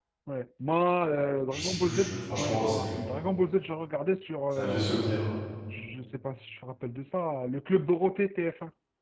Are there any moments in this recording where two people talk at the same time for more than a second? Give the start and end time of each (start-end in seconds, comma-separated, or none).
1.5-3.0